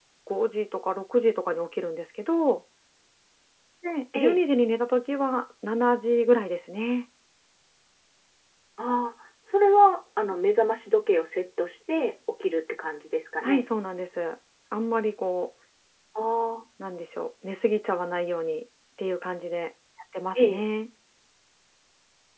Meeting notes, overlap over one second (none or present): none